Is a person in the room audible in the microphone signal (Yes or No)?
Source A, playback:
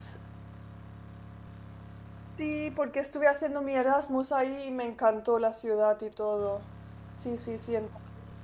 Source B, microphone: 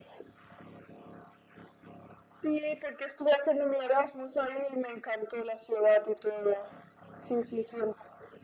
No